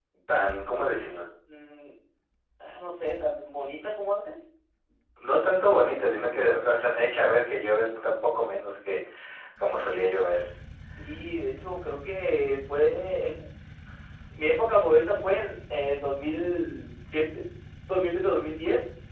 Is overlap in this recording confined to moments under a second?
Yes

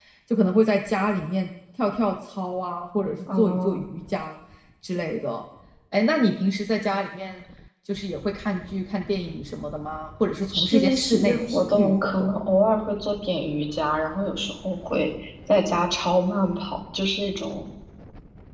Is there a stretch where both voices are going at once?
Yes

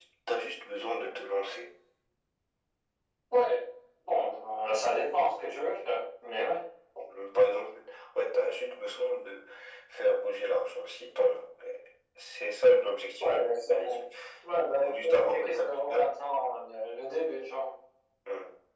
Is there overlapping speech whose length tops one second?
Yes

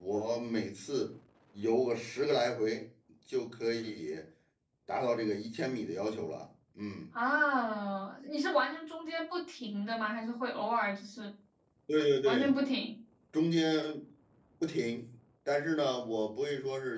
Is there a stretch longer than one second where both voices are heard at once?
No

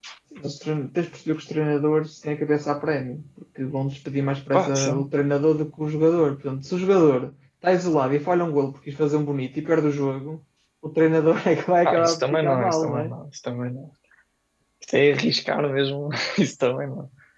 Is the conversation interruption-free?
No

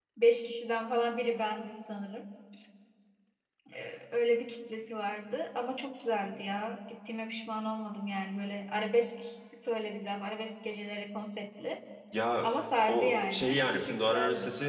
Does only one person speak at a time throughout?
No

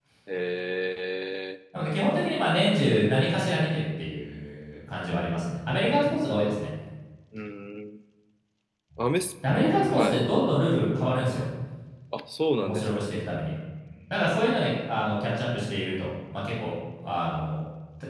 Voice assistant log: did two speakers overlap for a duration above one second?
No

